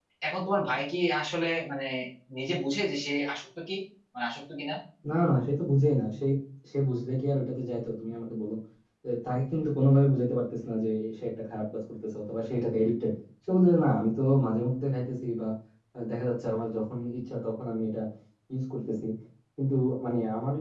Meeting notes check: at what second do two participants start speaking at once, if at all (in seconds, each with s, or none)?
none